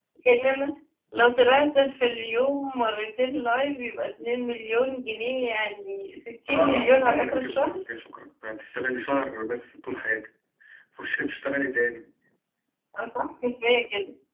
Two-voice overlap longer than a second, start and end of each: 6.5-7.8

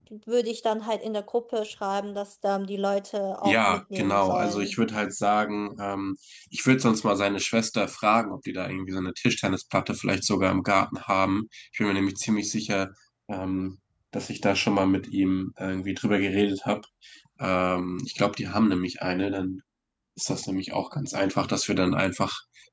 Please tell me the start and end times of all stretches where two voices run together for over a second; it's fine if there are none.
3.4-4.8

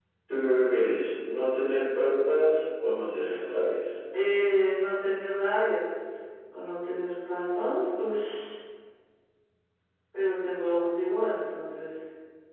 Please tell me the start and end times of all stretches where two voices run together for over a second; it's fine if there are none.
none

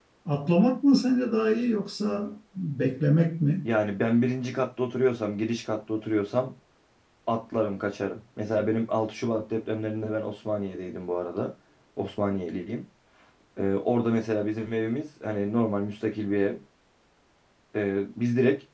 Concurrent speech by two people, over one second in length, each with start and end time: none

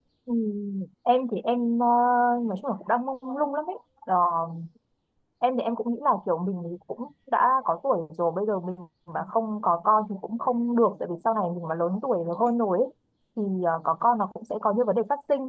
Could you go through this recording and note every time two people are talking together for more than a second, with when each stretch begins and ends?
none

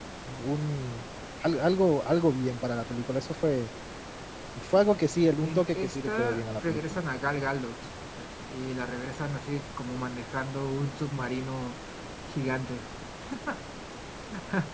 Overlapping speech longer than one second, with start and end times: 5.4-7.0

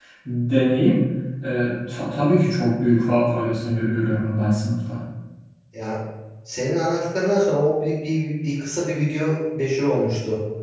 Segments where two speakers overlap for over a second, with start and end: none

